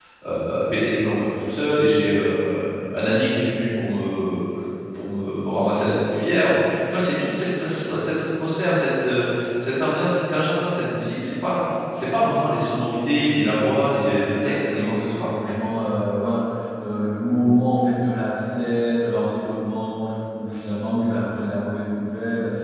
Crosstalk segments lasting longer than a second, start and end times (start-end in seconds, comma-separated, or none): 13.9-15.3